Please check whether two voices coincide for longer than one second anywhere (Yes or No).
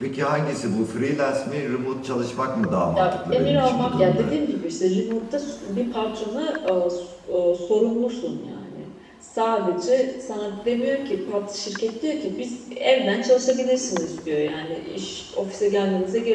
Yes